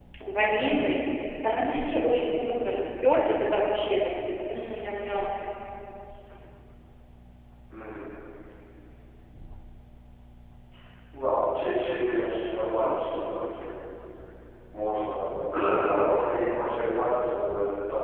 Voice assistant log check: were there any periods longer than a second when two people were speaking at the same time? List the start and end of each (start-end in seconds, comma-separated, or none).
none